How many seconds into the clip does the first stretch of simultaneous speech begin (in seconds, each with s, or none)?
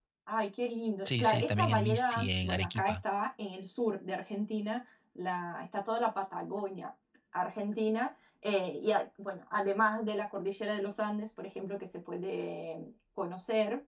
1.0 s